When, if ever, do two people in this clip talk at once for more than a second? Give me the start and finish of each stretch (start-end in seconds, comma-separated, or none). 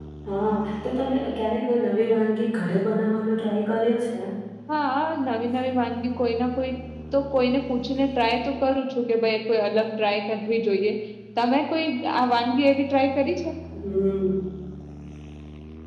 none